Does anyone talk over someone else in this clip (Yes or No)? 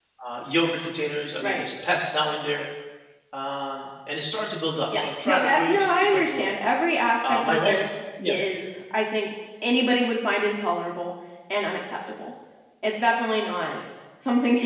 Yes